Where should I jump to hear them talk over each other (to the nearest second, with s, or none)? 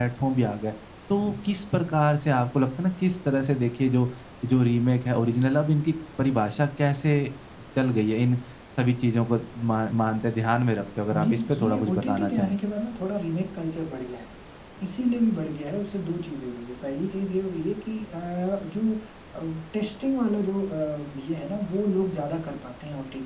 11 s